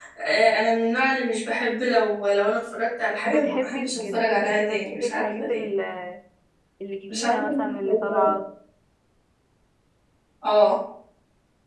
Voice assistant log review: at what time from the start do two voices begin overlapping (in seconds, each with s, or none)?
3.2 s